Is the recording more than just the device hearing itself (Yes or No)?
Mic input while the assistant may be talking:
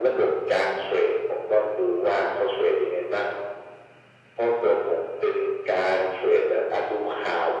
No